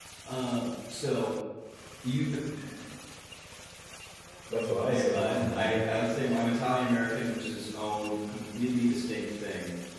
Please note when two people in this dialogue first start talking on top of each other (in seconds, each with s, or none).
4.8 s